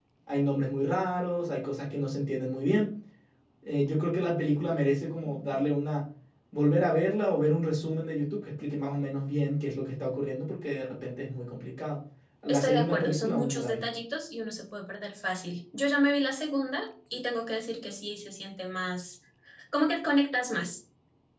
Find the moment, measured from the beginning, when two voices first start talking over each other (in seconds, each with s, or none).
12.5 s